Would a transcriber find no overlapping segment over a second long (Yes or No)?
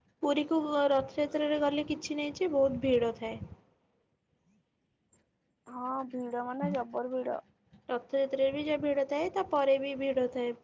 Yes